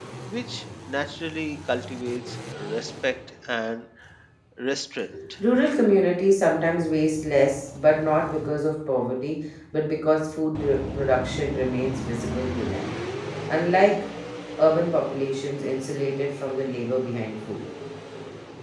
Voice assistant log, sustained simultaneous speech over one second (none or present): none